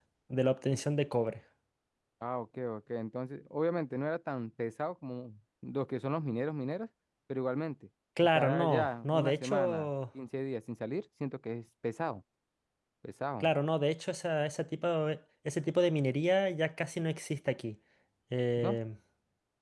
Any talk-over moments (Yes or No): Yes